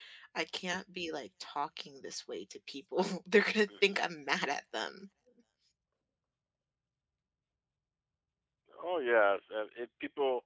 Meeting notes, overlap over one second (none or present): none